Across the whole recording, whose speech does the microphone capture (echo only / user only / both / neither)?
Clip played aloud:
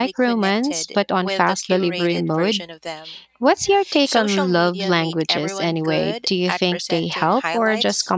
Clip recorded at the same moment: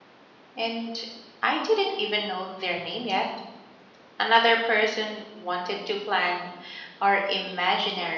user only